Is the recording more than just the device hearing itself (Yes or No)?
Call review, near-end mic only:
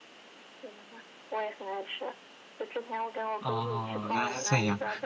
Yes